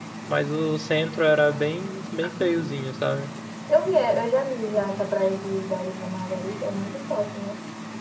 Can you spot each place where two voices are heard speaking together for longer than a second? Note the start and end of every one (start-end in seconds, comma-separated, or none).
none